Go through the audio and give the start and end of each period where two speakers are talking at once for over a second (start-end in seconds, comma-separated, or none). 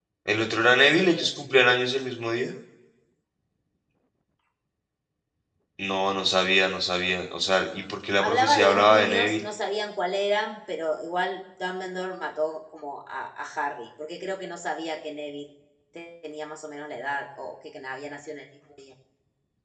8.2-9.4